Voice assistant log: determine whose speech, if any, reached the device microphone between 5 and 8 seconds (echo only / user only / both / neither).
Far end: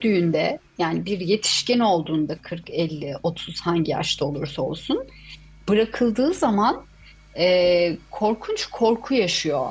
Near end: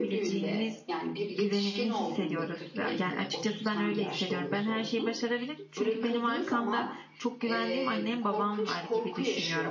both